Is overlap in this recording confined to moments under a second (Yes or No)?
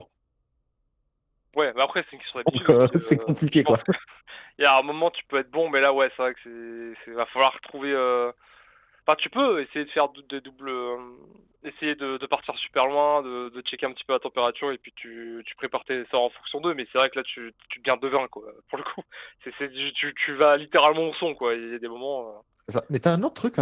No